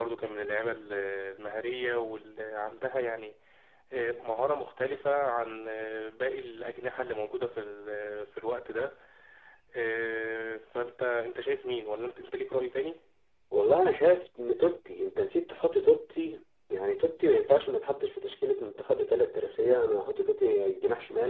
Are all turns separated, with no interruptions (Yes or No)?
Yes